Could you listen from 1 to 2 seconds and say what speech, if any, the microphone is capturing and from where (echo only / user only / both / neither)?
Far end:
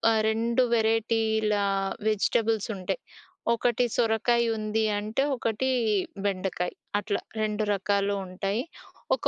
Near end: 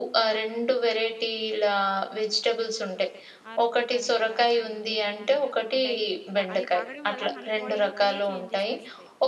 echo only